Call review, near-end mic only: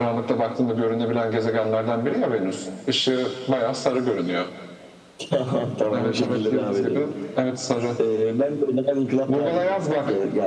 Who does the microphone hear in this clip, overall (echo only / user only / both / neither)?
echo only